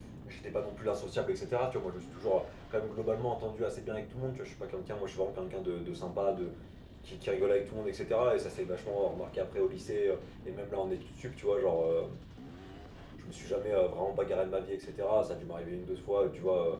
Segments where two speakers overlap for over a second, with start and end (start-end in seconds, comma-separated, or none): none